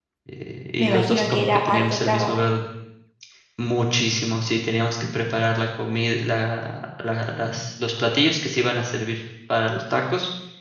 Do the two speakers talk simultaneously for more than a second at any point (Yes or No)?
Yes